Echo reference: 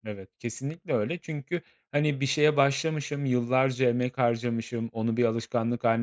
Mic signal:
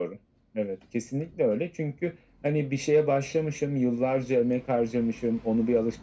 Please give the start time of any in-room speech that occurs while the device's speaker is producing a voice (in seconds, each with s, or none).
none